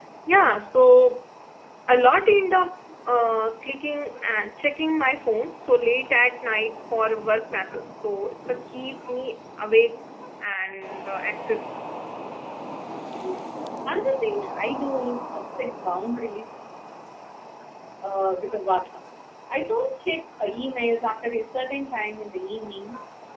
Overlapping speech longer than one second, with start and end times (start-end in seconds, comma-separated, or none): none